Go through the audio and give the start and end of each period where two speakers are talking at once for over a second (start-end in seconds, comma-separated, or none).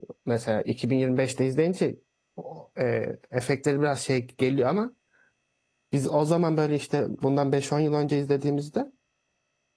none